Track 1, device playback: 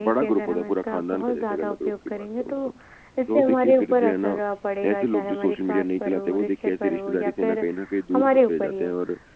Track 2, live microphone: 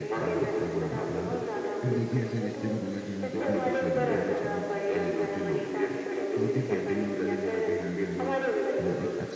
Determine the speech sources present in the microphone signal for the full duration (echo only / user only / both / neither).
both